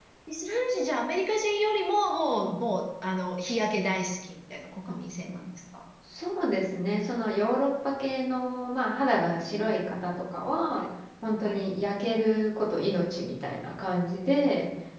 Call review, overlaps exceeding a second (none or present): none